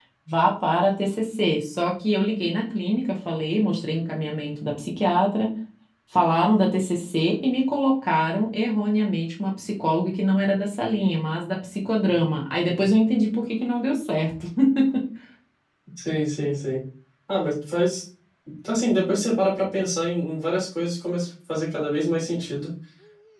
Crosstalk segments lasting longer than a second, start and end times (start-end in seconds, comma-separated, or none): none